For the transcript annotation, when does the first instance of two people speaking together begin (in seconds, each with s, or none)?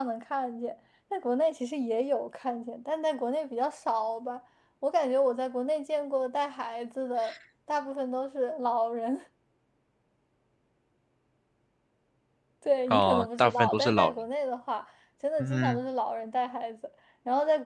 12.9 s